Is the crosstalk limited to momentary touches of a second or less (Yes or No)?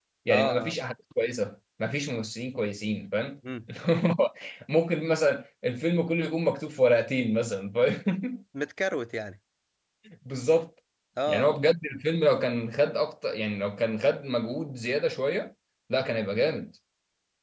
Yes